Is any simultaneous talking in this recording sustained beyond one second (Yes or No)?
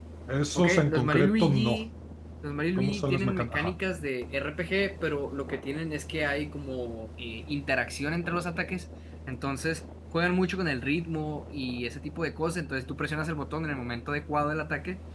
Yes